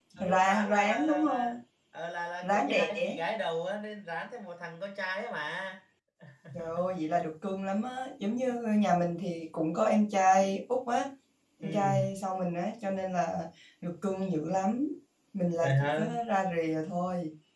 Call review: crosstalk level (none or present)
present